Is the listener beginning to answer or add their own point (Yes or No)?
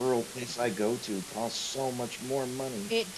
No